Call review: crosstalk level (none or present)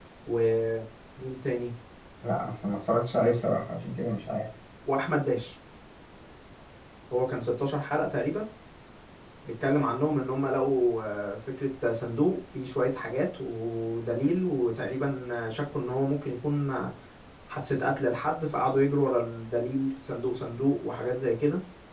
none